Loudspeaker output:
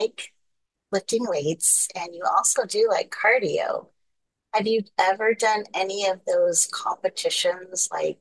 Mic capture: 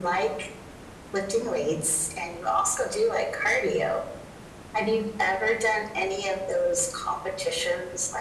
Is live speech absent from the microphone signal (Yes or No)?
Yes